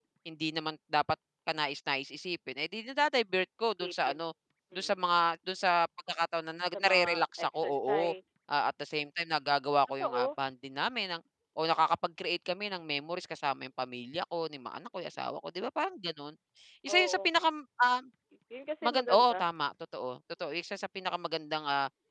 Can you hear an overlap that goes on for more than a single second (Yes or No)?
Yes